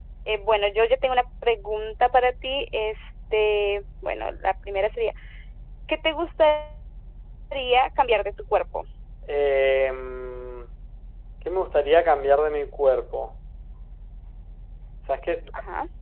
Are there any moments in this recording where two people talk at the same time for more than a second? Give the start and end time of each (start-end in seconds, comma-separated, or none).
none